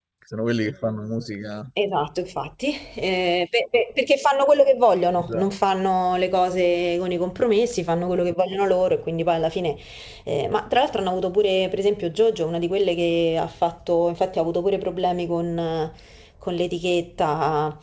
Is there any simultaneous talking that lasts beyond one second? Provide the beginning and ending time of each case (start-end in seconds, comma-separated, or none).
none